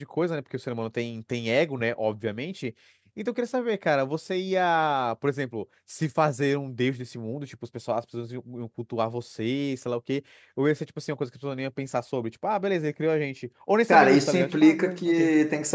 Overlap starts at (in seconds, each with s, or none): 13.9 s